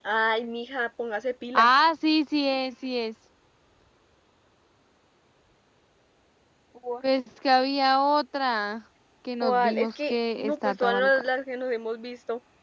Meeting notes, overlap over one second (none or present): present